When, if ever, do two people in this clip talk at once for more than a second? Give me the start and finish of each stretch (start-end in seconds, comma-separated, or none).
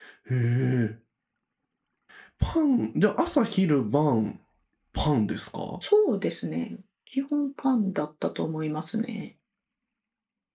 none